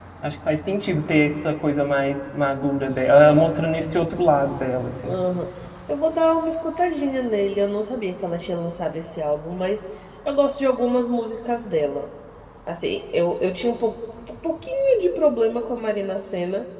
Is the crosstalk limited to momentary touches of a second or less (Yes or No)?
Yes